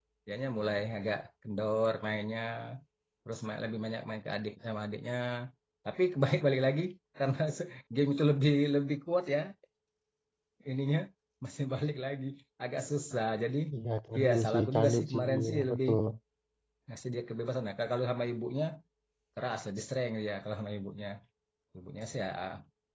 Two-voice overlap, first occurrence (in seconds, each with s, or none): 14.2 s